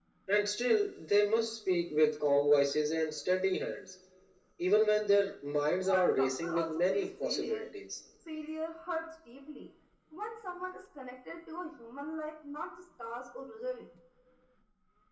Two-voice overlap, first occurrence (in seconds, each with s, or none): 5.8 s